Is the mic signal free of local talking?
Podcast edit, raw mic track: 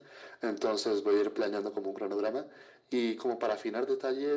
Yes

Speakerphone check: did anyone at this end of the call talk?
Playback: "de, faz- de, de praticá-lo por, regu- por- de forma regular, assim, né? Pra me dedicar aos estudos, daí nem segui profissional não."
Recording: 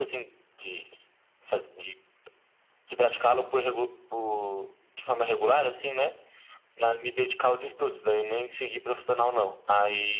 No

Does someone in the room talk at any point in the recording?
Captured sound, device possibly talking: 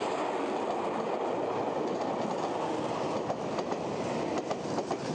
No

